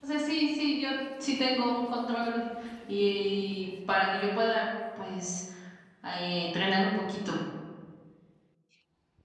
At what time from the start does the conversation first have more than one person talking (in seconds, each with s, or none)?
none